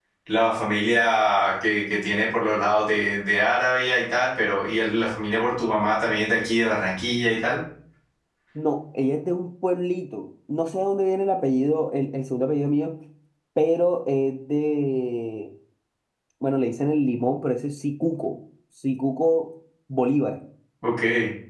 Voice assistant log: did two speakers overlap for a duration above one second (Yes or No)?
No